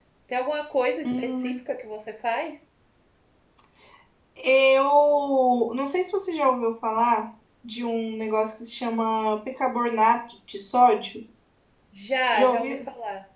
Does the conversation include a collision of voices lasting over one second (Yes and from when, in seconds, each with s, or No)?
No